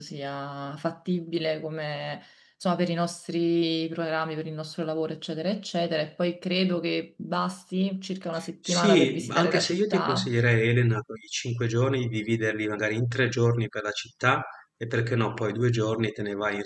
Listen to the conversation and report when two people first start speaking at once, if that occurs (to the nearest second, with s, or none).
9 s